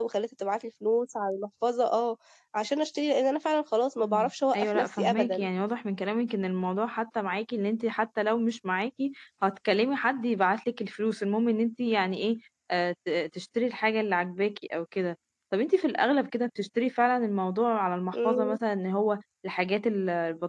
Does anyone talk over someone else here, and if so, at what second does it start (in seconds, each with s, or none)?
4.0 s